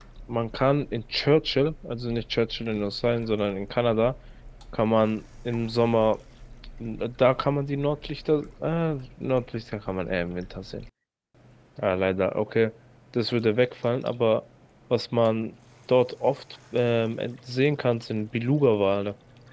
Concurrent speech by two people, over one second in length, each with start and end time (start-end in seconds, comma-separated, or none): none